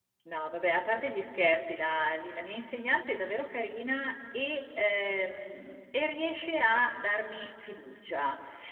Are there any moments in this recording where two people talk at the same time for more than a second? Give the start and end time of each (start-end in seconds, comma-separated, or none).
none